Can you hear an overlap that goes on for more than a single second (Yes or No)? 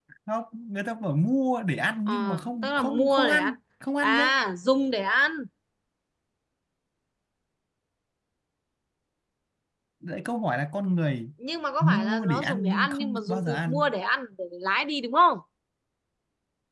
Yes